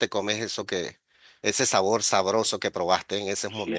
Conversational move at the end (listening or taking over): taking over